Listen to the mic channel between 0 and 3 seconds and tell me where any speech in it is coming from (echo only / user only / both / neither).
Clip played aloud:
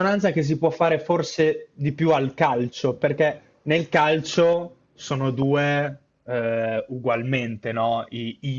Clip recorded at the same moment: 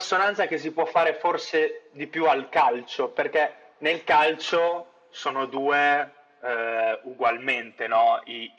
echo only